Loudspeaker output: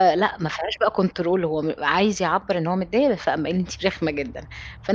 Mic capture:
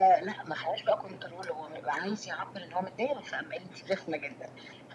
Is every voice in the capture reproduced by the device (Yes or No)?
Yes